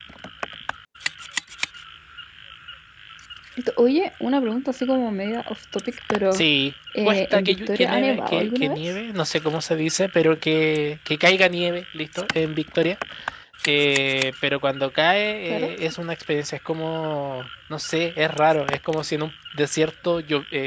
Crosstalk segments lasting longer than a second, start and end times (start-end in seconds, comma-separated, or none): 7.0-8.8